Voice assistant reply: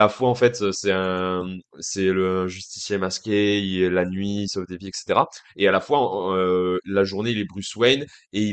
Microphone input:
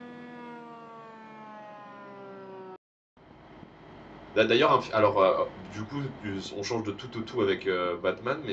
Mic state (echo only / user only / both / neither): user only